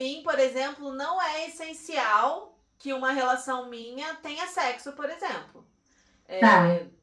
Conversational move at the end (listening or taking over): listening